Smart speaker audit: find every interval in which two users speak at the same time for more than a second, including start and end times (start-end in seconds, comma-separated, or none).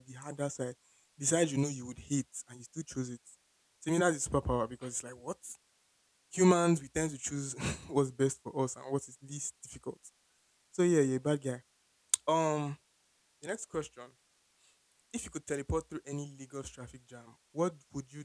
none